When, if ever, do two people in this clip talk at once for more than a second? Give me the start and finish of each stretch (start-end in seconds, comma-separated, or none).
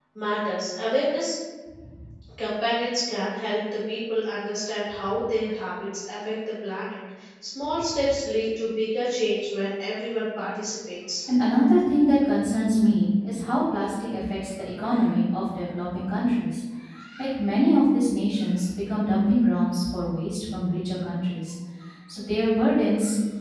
none